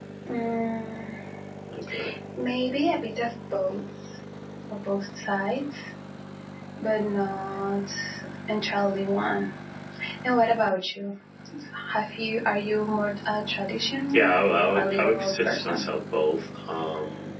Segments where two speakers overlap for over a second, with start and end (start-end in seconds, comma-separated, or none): 14.1-15.8